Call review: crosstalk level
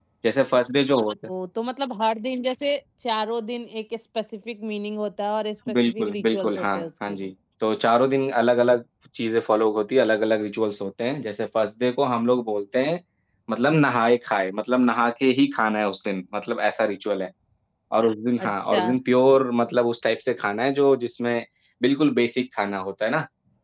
present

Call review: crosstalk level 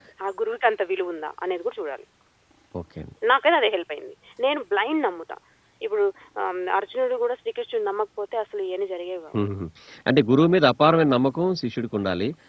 none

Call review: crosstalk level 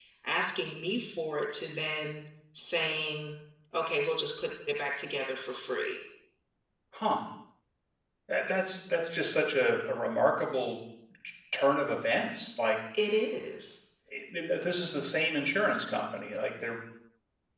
none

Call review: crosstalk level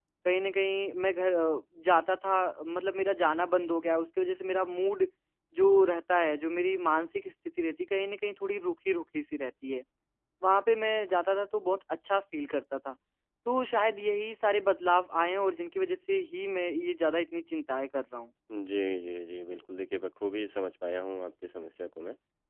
none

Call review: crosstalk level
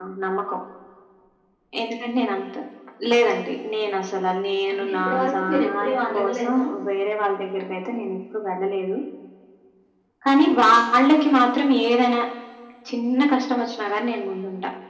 present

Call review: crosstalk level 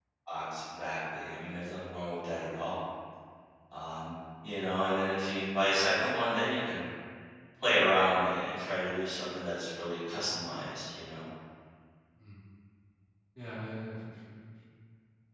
none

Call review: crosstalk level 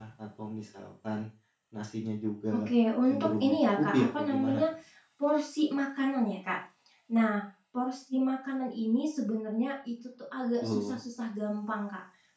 present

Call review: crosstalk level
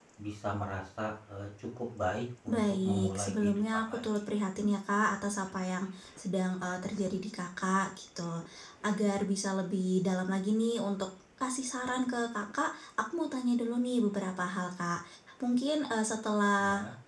present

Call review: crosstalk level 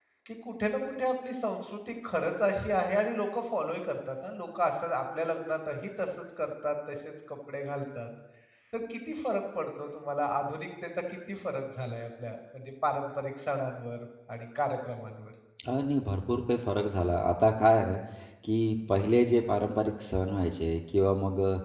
none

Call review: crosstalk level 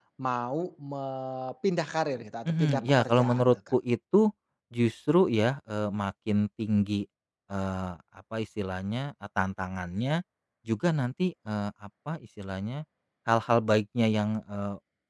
present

